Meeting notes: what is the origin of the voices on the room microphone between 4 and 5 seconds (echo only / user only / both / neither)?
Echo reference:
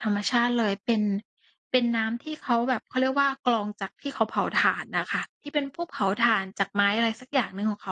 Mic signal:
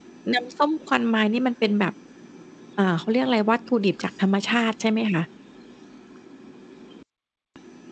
user only